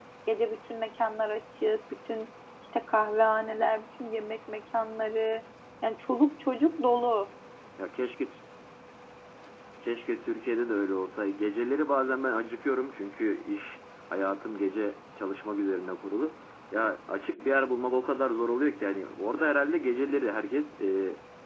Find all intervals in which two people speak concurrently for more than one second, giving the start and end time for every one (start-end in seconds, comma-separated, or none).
none